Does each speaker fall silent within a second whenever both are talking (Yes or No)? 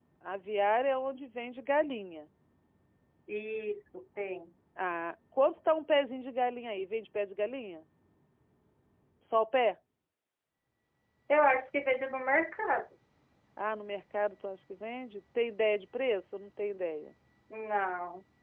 Yes